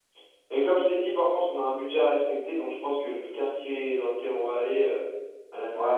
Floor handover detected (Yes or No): Yes